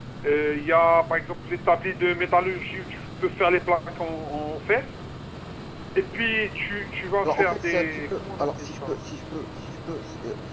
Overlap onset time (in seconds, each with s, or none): 7.2 s